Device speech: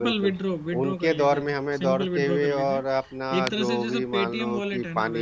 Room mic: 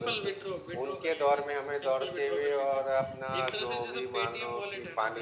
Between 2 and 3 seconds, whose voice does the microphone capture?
echo only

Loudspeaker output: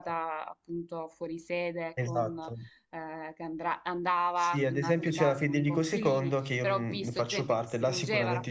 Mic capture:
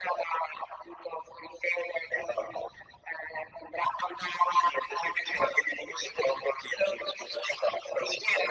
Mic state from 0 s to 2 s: echo only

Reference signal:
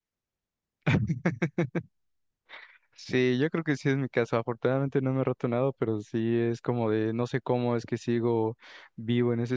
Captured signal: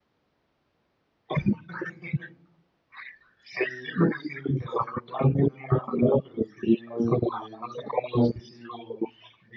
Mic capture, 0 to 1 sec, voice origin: neither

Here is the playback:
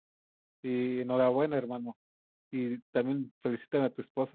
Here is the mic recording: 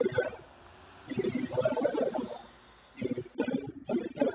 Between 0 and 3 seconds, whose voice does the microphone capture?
echo only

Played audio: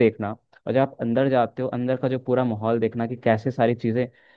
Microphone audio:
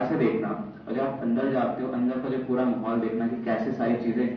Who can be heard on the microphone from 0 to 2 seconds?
echo only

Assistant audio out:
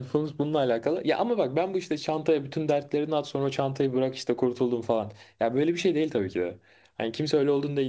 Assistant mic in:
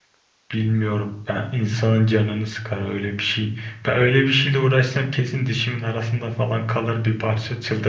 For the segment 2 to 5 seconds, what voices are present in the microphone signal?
user only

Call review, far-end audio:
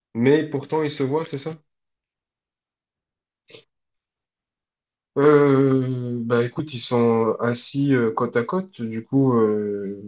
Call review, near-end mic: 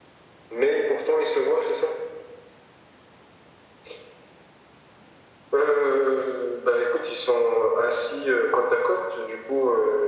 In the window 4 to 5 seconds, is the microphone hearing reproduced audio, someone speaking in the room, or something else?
neither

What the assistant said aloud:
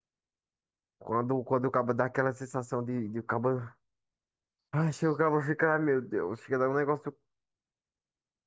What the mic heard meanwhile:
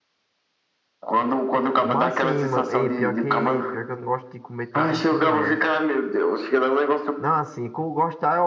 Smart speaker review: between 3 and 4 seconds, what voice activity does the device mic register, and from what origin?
both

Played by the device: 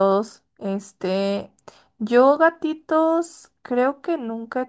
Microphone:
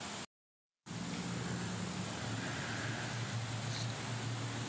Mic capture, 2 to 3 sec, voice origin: neither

